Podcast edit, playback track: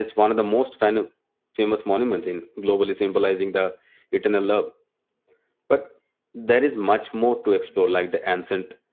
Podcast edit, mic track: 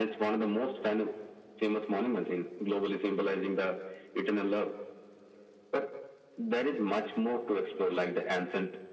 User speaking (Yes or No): No